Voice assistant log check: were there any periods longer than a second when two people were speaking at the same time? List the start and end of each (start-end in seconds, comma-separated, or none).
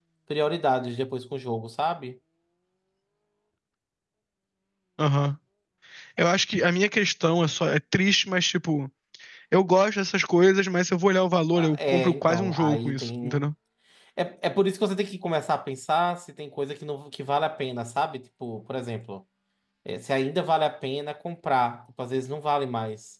11.5-13.4